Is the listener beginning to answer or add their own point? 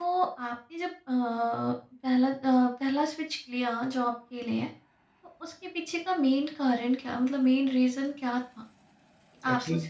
No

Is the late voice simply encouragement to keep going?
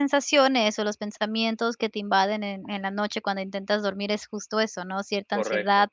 Yes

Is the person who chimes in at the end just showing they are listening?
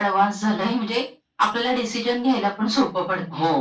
No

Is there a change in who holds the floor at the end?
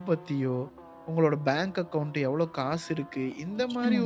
No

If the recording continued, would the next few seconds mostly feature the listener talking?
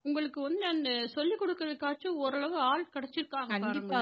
Yes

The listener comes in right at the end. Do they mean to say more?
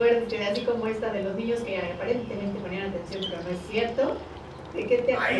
Yes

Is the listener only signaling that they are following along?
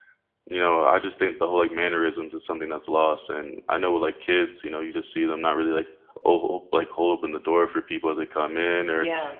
Yes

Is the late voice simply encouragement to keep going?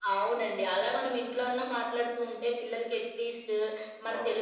Yes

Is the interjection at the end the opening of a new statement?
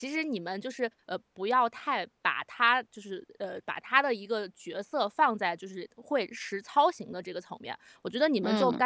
No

